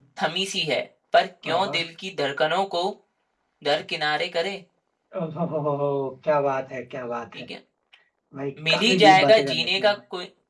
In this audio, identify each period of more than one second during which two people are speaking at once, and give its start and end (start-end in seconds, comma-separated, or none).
8.6-9.9